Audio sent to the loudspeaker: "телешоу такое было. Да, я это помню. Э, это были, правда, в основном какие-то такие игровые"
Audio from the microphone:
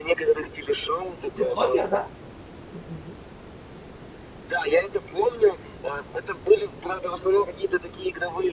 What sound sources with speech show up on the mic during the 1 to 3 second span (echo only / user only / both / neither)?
both